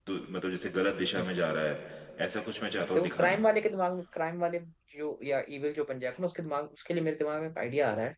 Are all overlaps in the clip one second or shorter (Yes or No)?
Yes